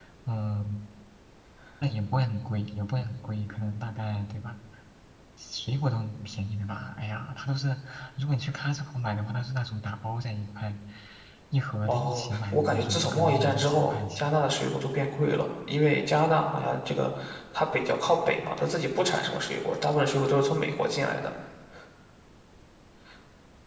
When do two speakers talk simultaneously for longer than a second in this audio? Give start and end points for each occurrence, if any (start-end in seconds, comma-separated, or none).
11.9-14.3